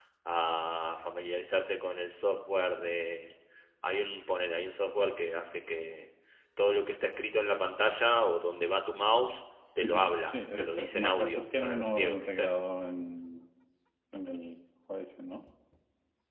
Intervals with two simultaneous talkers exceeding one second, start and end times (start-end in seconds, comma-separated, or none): 9.8-12.5